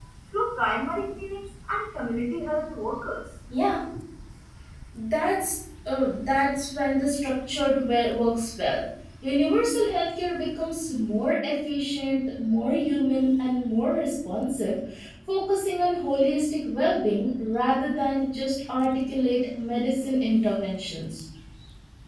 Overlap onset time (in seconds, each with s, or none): none